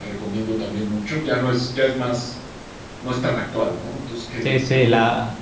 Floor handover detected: Yes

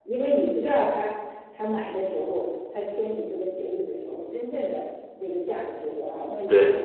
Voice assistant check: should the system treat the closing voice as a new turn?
No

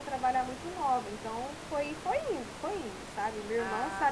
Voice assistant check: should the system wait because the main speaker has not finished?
Yes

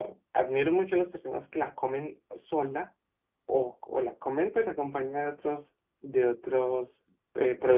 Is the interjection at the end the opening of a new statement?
Yes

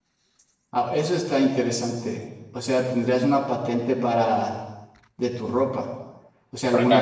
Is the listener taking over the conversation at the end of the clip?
No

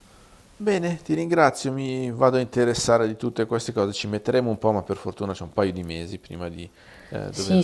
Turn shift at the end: Yes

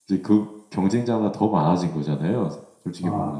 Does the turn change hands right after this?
Yes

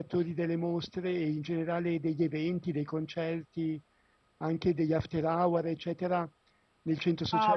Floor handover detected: Yes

